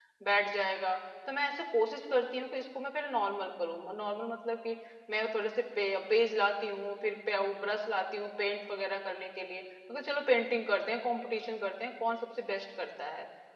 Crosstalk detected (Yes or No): No